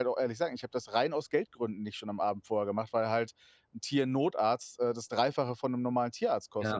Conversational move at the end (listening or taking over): listening